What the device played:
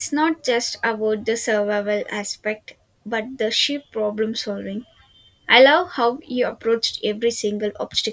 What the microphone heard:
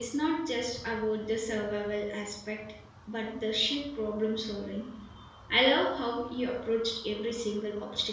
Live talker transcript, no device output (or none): none